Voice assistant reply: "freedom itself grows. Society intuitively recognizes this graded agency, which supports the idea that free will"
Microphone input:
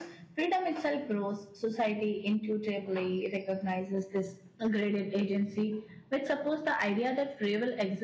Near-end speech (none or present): none